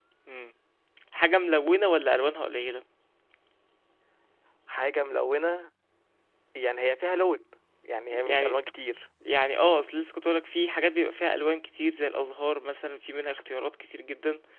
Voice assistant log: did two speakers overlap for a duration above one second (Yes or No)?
No